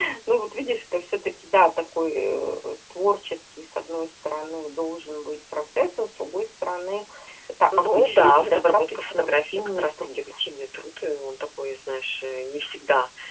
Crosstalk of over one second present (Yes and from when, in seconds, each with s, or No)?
Yes, from 7.8 s